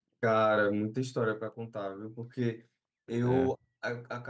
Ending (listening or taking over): listening